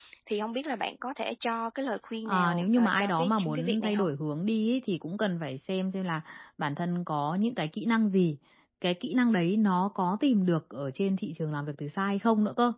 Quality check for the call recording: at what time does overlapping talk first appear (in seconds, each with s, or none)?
2.2 s